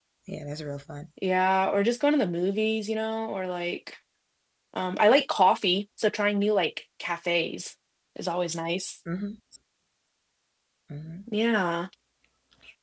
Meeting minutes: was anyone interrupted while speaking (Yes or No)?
No